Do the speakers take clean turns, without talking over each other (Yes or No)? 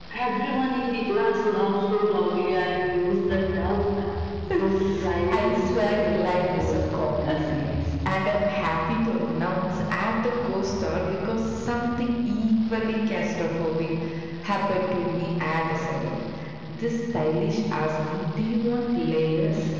No